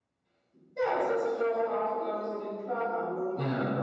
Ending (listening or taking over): taking over